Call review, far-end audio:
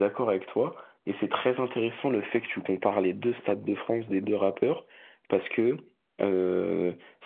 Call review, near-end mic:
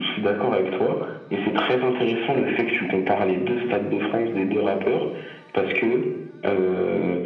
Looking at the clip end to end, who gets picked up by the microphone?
echo only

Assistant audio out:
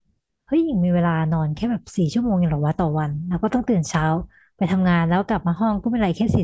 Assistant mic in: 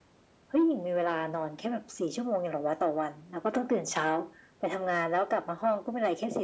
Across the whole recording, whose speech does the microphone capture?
echo only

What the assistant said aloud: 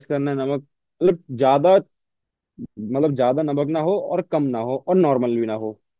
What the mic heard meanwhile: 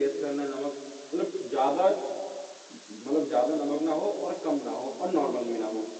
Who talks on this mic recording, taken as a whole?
echo only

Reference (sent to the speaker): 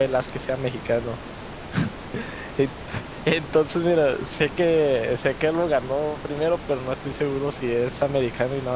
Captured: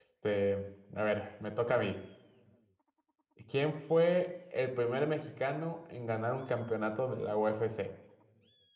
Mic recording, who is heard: user only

